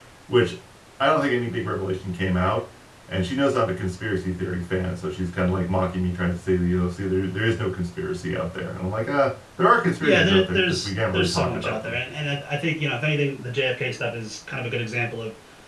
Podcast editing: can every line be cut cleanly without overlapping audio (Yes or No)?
No